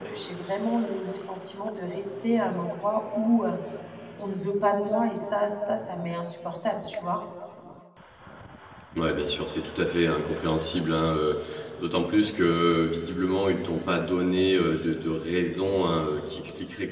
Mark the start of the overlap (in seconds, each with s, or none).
none